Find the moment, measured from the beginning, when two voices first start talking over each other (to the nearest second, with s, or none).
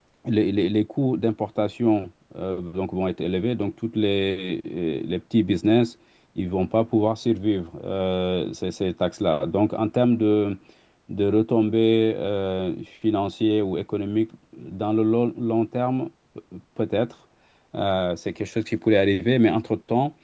none